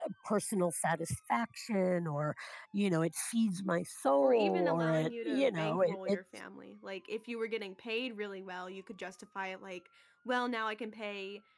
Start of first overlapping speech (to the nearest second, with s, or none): 4 s